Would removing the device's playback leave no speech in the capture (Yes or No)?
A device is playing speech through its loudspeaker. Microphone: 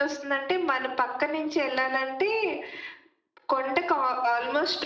Yes